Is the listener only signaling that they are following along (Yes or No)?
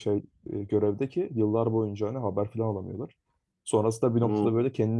Yes